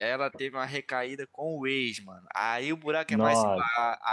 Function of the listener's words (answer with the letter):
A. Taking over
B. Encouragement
B